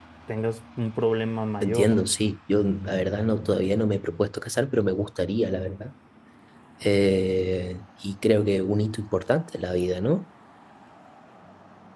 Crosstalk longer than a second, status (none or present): none